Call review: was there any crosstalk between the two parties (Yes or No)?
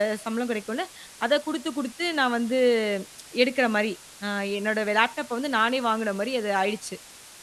No